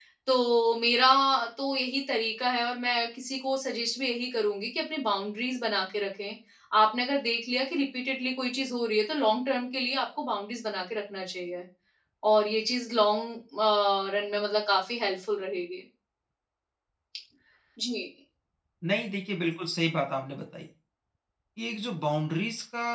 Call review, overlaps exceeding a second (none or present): none